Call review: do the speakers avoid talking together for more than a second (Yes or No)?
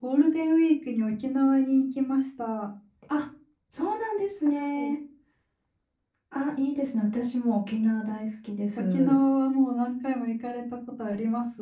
Yes